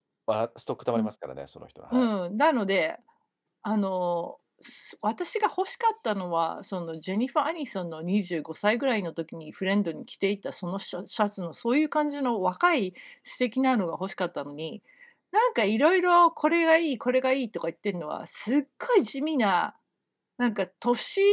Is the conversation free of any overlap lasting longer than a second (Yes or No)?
Yes